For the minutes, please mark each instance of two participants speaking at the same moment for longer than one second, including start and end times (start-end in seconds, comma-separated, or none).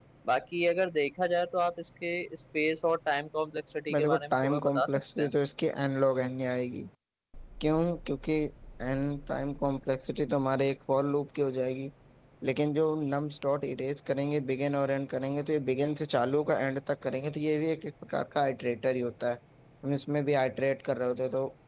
3.9-5.3